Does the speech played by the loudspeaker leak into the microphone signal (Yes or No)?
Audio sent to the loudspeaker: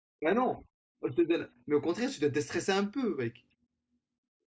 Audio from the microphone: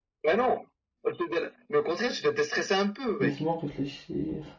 Yes